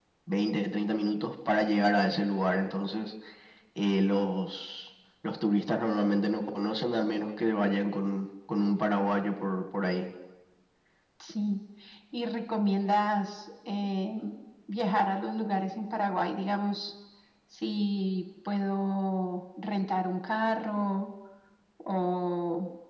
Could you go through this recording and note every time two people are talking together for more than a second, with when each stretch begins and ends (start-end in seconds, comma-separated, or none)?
none